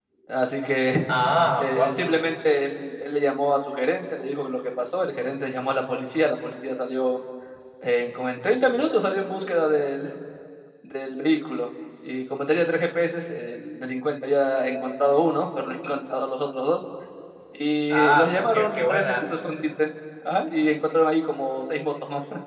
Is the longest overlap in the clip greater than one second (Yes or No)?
Yes